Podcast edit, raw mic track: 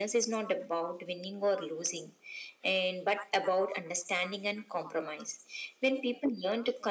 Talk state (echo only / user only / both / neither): echo only